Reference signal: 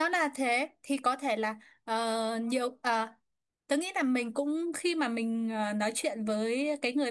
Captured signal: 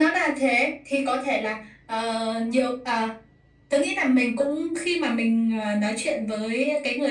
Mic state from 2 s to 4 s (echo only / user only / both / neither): echo only